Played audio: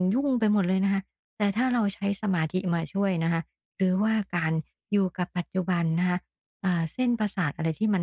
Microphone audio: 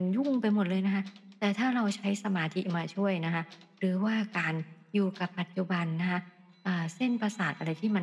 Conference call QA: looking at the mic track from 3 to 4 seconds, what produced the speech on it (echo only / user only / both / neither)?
echo only